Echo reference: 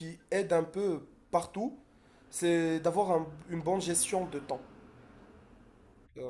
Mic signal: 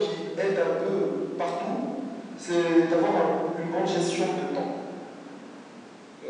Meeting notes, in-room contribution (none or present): none